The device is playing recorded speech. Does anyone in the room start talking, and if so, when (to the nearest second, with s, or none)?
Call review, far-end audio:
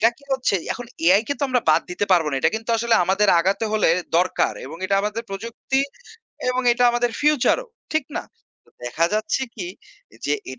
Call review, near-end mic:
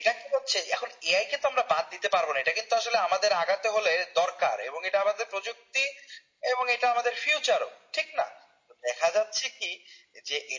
none